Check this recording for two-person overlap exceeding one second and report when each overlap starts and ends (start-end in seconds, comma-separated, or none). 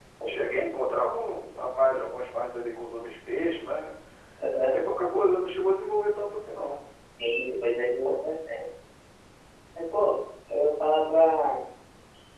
none